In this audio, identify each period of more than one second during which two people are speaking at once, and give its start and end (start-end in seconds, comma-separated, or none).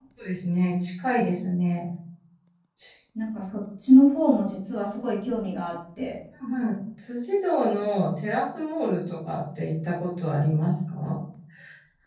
none